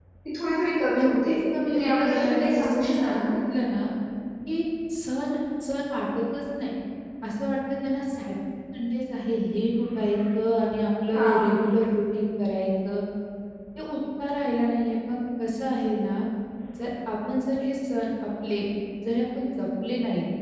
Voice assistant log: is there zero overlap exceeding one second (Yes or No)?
No